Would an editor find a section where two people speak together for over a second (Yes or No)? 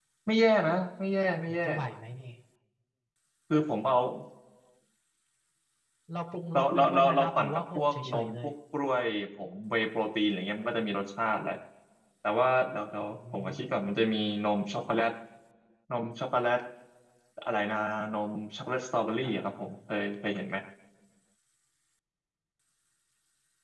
Yes